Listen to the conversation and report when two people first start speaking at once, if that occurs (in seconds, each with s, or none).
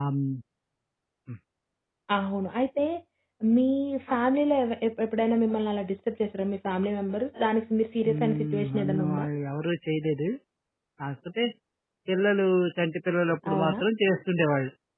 8.1 s